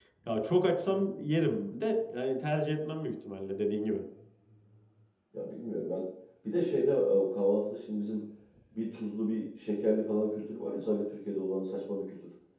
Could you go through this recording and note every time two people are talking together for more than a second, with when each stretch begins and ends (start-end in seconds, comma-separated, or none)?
none